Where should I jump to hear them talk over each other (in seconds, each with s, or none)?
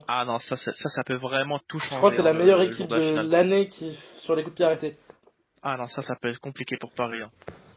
1.8 s